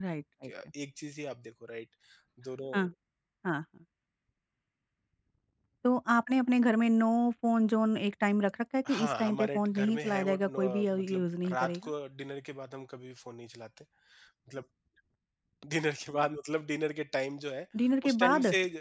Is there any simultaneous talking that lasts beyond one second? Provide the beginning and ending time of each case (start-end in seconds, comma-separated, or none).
8.9-11.9